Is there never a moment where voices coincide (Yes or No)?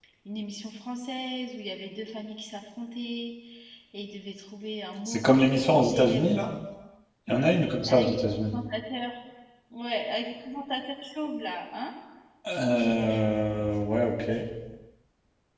No